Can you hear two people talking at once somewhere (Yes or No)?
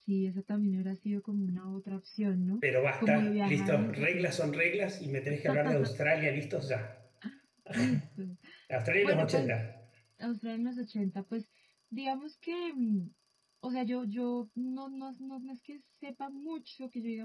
Yes